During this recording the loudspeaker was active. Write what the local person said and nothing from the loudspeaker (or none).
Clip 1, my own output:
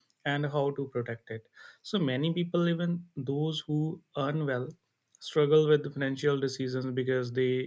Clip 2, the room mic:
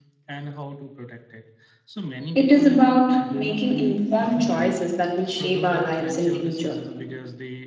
It is about making informed choices that will shape our lives in future.